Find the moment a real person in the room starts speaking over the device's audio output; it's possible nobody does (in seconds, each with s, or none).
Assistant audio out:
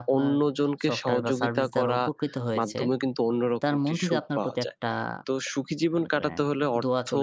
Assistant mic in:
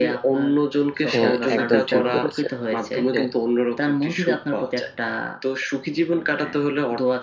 1.1 s